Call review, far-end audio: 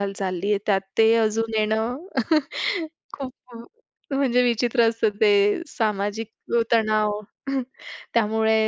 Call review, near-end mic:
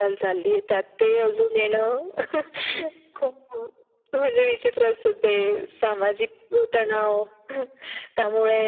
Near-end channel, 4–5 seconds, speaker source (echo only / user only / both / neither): echo only